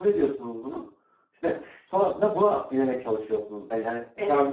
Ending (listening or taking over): taking over